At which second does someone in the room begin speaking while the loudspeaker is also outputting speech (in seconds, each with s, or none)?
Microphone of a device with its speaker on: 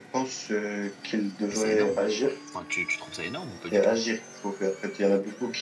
1.5 s